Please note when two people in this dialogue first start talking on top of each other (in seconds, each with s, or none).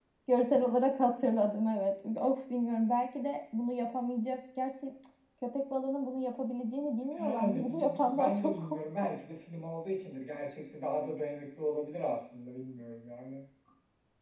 7.1 s